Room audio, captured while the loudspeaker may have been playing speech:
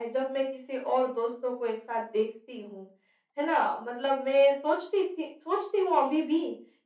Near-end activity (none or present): none